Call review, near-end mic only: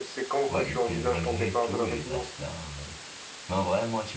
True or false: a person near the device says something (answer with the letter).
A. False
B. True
B